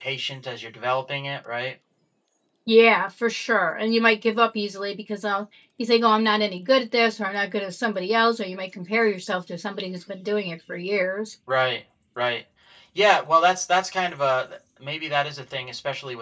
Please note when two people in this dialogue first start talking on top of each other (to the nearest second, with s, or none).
none